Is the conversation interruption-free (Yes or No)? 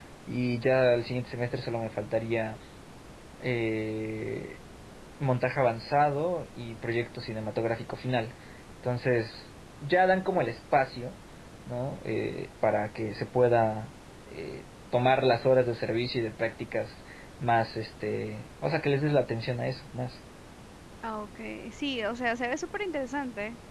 Yes